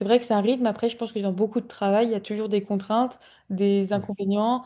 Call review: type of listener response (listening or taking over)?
listening